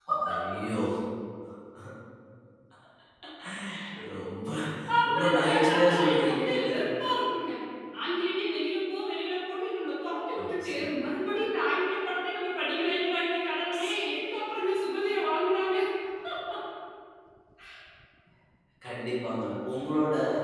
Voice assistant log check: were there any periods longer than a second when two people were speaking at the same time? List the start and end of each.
5.0-6.7

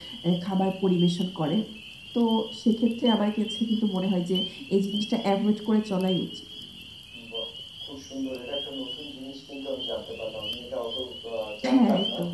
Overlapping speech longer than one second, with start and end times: none

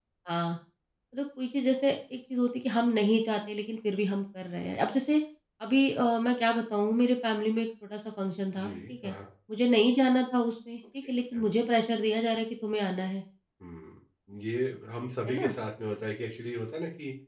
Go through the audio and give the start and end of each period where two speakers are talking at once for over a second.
none

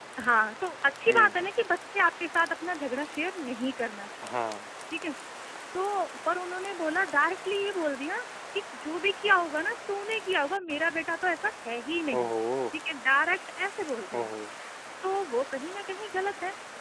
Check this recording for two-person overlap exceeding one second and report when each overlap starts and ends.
none

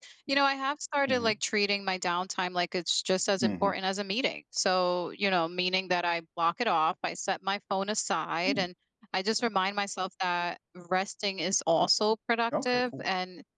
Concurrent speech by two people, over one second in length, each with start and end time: none

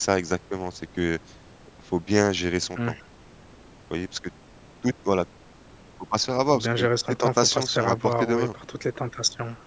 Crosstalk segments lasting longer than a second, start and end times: 6.5-8.5

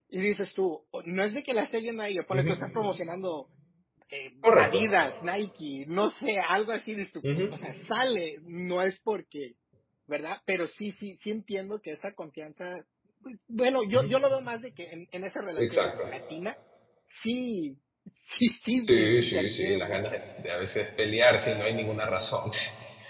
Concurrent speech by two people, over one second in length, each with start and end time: 18.9-20.2

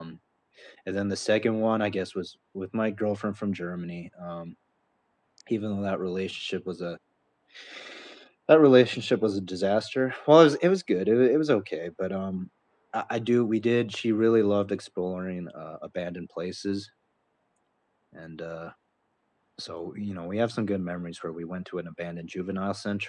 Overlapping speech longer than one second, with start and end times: none

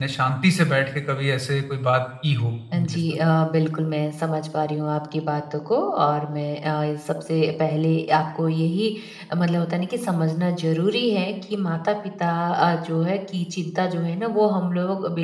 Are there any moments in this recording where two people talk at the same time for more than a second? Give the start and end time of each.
none

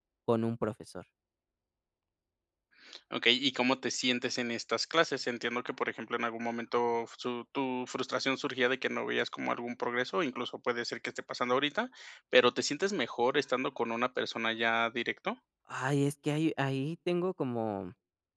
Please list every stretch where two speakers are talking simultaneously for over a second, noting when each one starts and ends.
none

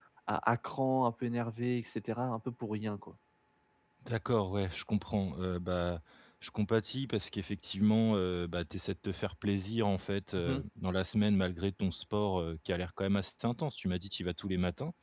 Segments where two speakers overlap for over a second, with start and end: none

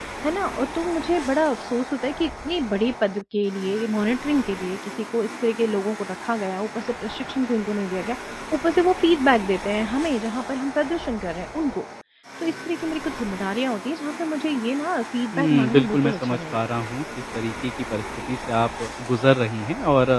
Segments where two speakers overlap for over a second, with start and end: 15.3-16.6

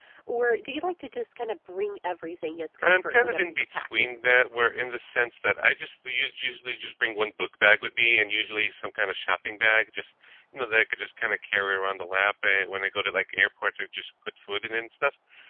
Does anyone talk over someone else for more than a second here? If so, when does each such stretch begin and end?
2.8-4.2

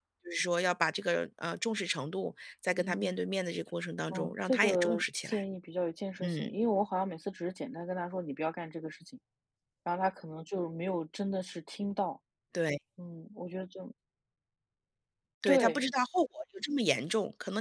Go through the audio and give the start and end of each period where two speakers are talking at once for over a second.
4.1-5.4

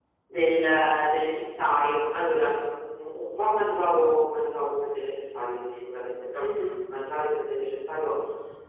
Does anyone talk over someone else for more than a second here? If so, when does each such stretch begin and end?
none

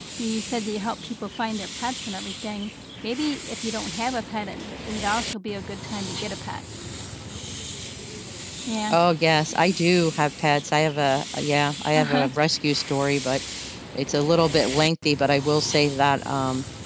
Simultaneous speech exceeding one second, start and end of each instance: none

